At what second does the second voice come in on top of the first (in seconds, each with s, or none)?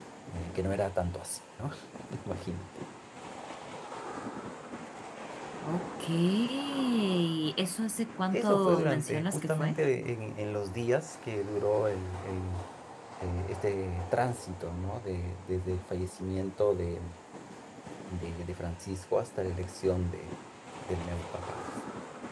8.3 s